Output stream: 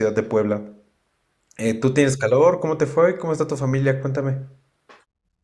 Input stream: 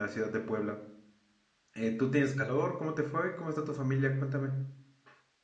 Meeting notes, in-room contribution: none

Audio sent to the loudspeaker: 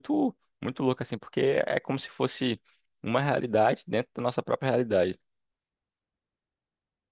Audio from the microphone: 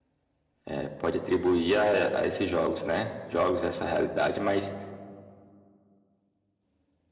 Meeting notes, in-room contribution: present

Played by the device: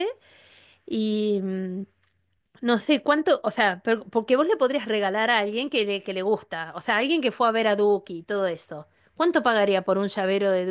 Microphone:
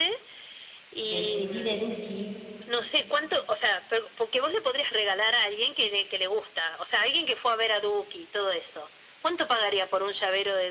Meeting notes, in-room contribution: present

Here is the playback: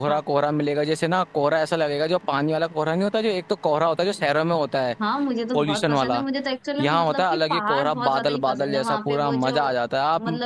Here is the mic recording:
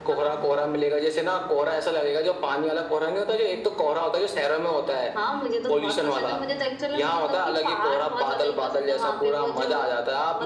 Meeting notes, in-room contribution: none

